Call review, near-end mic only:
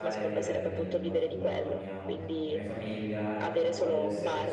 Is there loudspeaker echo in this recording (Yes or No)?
Yes